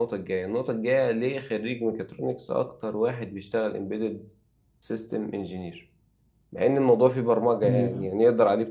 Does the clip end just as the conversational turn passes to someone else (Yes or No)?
No